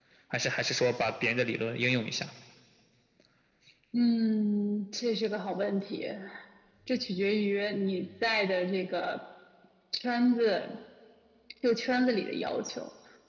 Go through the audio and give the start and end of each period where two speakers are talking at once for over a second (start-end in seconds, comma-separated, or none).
none